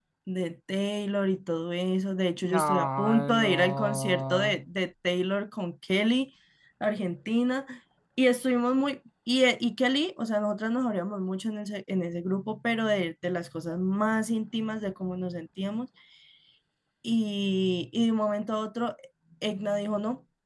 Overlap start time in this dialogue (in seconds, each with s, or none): 2.4 s